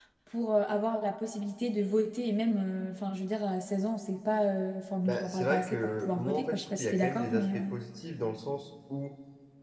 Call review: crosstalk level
present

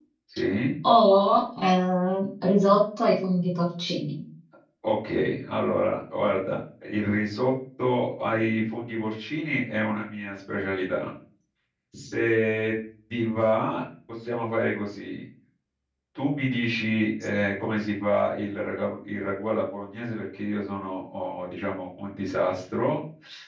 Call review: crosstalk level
none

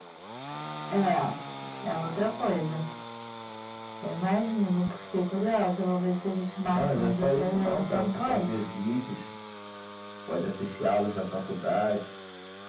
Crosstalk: present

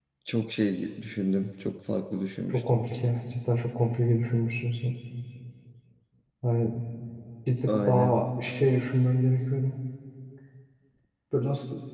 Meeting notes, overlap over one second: none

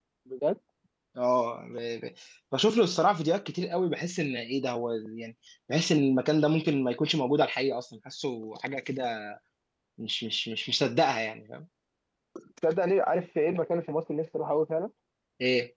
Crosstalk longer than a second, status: none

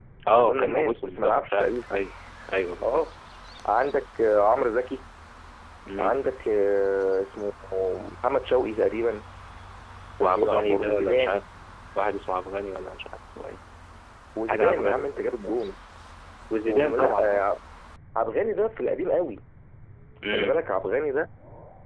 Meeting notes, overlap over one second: present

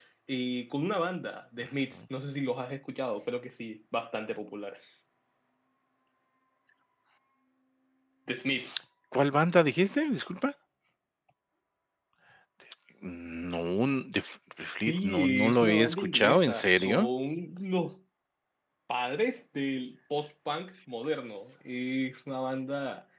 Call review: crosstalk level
present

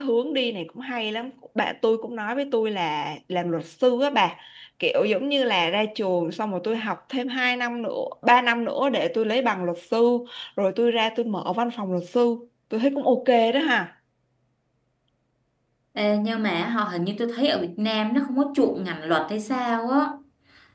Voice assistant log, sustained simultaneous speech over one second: none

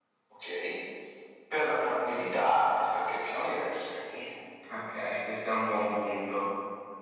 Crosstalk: none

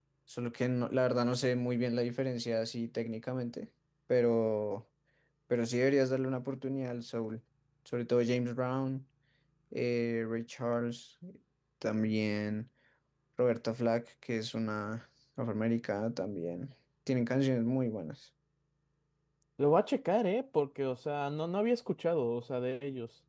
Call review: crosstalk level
none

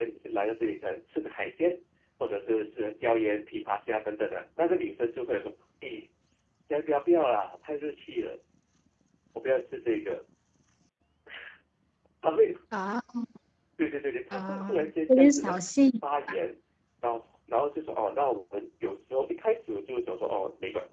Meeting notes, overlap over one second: present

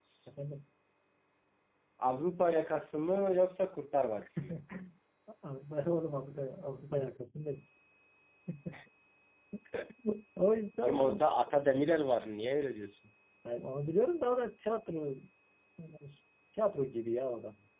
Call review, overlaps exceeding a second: none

